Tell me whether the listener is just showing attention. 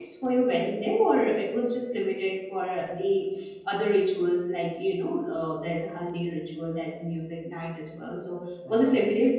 Yes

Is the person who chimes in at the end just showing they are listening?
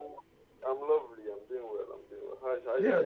No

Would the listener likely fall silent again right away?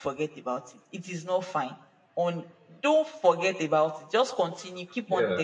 Yes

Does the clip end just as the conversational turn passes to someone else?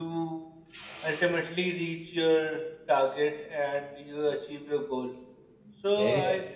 Yes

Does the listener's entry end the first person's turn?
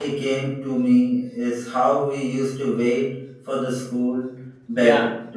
No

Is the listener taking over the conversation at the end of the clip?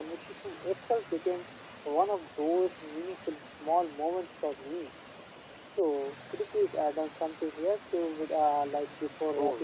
Yes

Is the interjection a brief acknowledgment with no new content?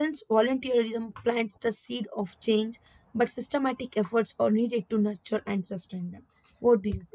No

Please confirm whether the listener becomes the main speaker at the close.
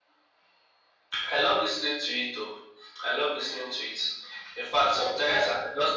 No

